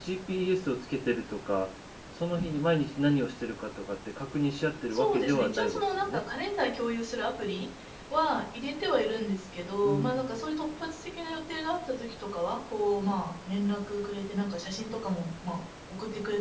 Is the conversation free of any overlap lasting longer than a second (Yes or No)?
No